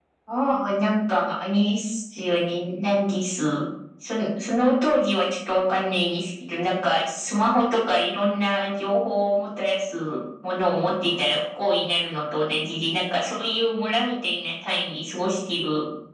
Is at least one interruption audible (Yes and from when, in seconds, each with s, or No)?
No